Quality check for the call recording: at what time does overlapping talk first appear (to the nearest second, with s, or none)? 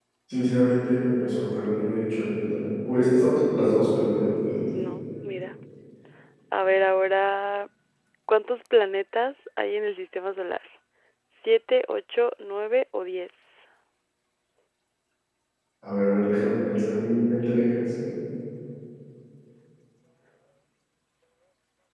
none